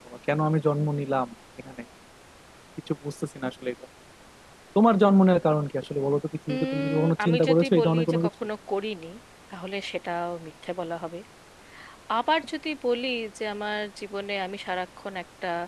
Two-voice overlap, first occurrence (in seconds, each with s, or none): 6.5 s